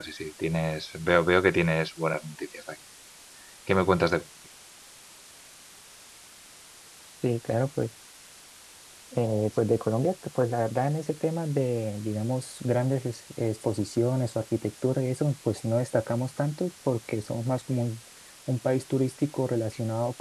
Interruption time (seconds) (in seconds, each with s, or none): none